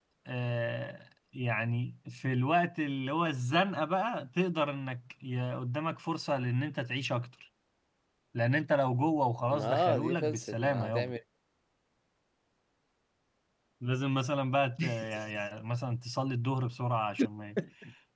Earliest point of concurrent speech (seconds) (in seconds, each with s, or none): 9.5 s